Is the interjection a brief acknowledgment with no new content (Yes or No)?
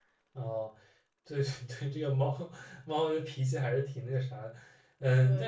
Yes